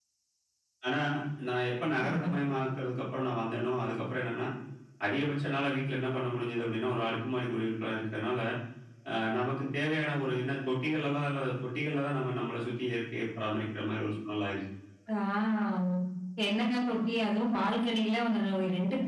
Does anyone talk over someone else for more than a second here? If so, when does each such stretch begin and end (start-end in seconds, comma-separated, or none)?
none